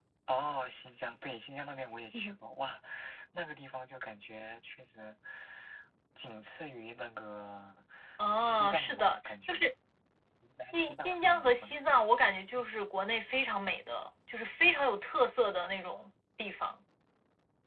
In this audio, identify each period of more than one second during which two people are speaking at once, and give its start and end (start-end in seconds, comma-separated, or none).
8.4-9.7, 10.7-11.9